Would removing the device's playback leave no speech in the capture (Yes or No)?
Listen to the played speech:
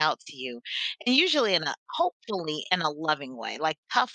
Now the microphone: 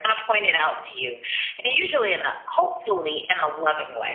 Yes